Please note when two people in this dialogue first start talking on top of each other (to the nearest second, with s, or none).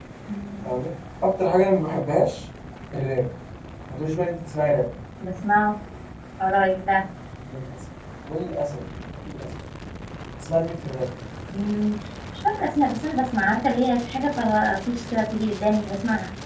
none